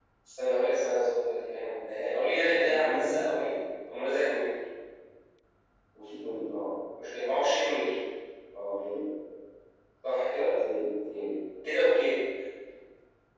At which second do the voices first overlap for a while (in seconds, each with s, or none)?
1.6 s